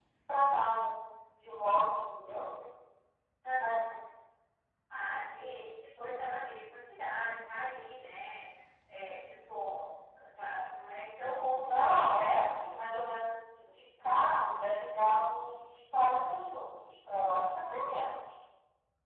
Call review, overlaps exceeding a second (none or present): none